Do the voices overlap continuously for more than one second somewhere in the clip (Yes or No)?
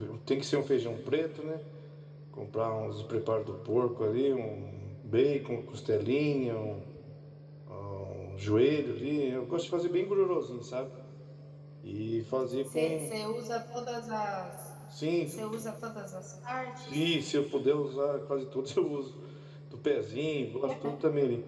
No